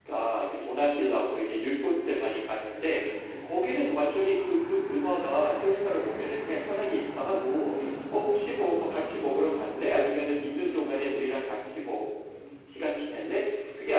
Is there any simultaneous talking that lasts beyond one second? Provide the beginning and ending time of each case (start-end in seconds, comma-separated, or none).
none